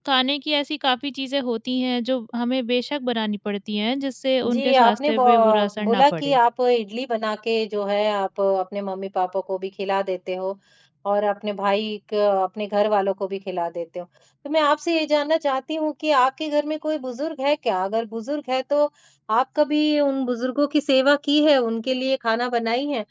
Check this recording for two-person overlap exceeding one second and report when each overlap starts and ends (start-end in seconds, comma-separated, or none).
4.5-6.4